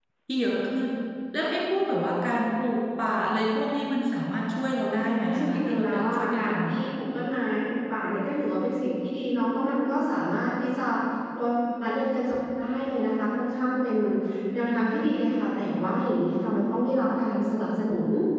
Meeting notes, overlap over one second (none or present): present